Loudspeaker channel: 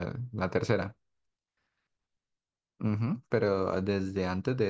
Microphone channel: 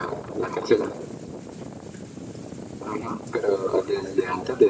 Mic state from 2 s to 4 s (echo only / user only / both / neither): echo only